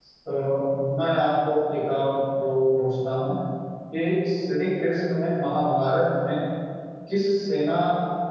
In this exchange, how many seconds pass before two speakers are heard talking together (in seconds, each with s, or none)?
none